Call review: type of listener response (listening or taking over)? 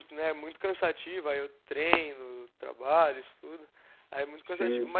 listening